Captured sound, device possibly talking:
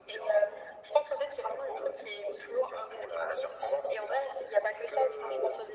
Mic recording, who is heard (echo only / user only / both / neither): echo only